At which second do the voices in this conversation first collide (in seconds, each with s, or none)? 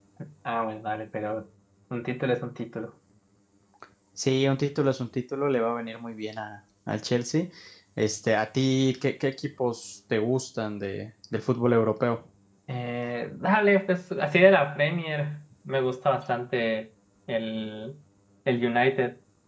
none